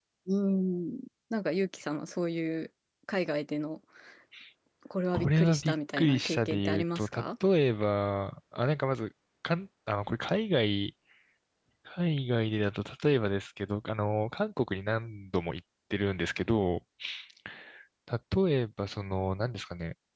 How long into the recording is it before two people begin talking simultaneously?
5.1 s

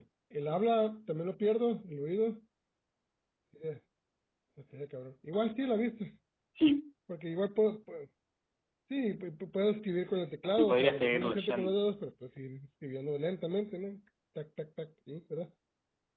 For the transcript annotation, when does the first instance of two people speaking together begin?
10.6 s

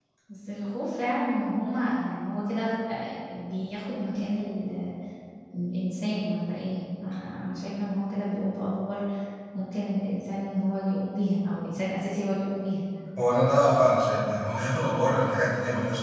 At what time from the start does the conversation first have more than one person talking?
none

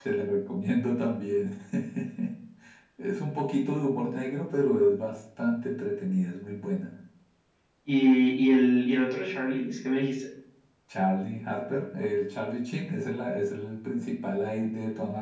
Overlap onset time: none

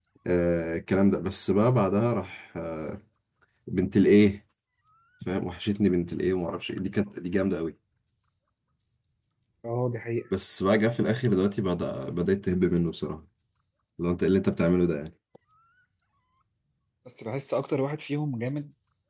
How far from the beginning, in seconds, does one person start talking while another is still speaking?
none

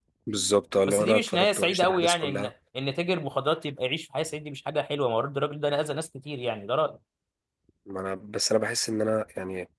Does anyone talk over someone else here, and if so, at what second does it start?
0.9 s

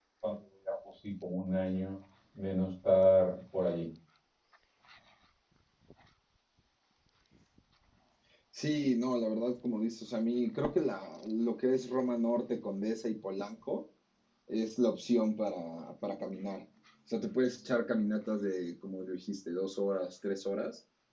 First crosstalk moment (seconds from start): none

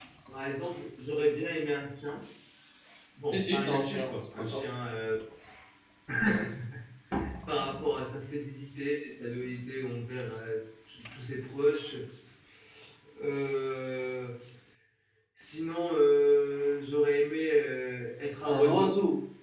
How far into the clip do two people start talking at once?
3.3 s

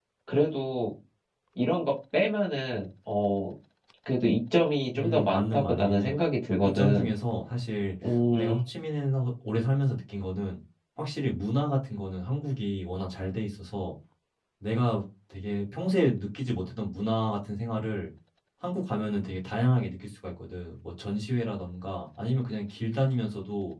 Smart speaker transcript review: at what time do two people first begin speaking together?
4.9 s

